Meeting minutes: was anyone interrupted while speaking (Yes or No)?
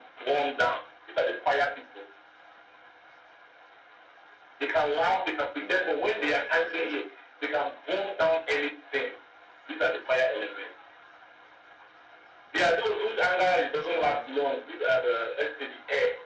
Yes